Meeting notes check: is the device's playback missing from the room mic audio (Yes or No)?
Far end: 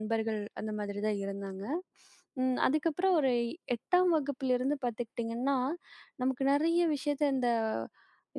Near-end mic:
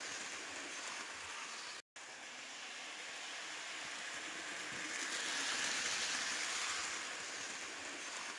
Yes